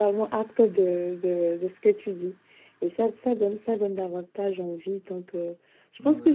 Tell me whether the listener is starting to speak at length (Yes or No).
No